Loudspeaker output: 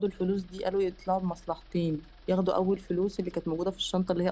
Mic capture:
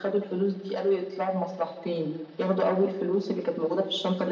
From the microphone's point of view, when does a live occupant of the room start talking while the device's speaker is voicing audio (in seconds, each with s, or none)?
none